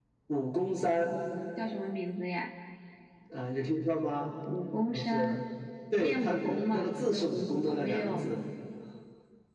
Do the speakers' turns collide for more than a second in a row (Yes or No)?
Yes